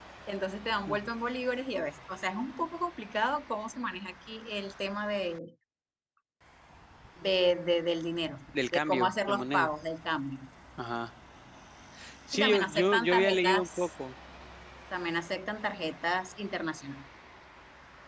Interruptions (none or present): present